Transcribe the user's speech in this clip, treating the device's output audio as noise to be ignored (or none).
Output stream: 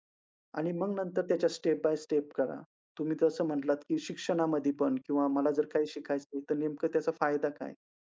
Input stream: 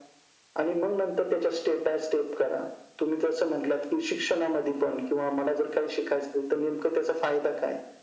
none